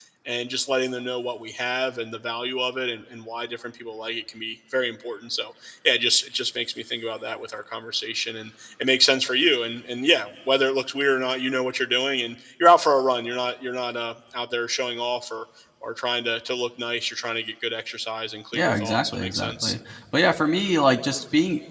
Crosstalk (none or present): present